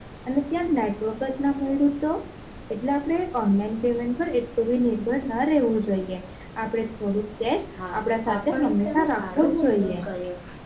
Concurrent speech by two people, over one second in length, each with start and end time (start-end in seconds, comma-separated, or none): 8.3-9.9